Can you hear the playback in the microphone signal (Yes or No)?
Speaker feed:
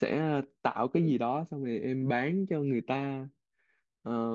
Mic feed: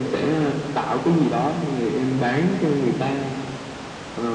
Yes